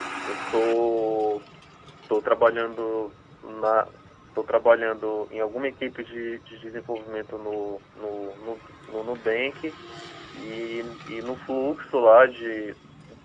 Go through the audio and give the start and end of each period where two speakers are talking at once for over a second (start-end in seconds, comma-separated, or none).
none